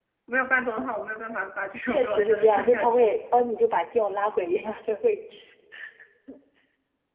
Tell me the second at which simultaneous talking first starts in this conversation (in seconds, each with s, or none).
1.9 s